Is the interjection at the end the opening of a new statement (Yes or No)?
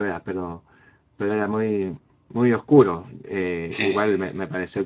No